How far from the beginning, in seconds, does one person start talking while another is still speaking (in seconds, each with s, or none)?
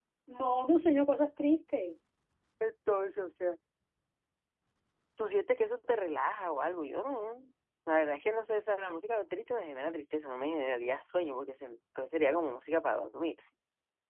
none